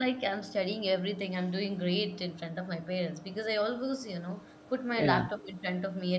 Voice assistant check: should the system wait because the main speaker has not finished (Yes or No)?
Yes